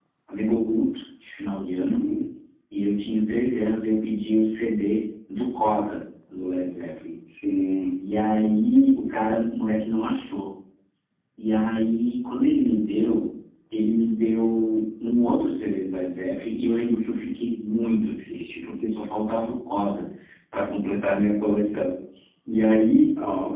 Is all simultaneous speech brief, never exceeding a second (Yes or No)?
Yes